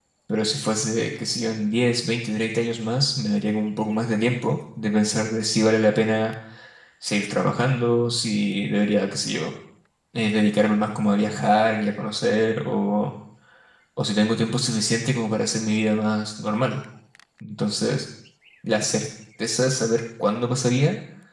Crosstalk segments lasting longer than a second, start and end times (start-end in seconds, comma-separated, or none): none